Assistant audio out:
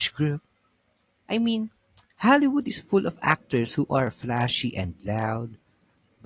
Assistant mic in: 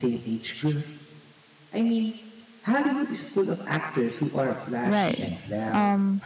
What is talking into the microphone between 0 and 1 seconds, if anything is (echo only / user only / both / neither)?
echo only